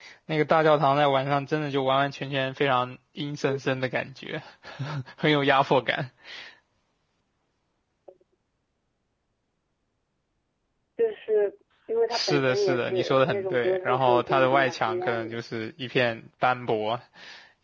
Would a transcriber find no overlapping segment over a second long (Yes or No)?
No